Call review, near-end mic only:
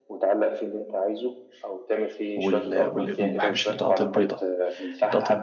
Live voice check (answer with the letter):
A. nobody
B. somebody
B